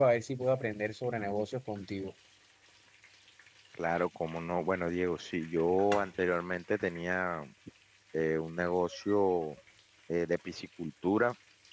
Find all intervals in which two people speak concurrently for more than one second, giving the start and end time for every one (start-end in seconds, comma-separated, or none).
none